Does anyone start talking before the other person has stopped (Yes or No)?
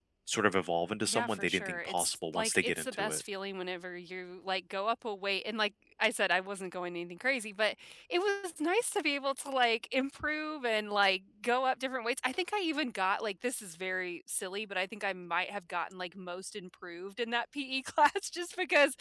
Yes